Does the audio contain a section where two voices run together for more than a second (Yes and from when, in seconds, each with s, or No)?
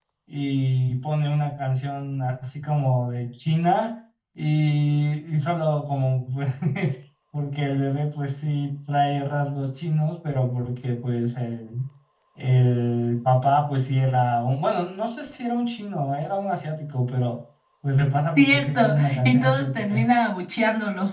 Yes, from 18.4 s